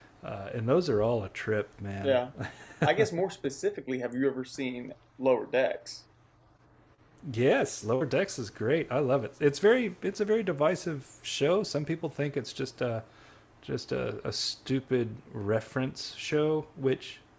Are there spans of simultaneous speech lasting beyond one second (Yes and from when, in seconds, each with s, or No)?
No